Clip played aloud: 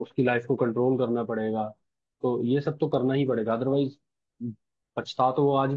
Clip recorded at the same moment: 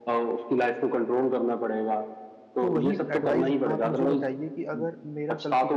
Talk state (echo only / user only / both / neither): both